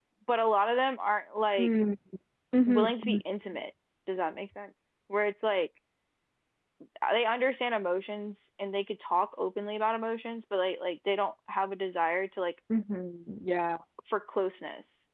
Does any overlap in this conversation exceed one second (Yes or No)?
No